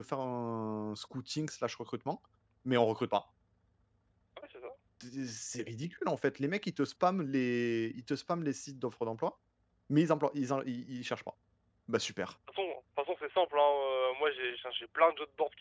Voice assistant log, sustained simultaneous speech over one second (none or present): none